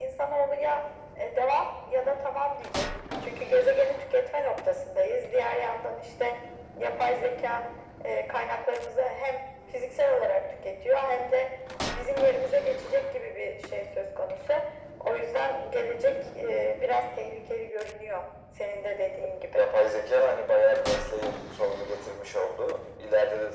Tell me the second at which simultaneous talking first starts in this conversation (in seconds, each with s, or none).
none